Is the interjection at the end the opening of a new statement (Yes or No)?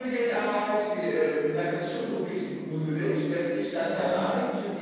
No